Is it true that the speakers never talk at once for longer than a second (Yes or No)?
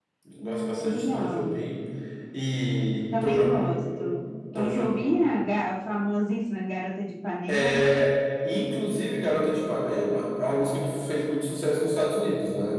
No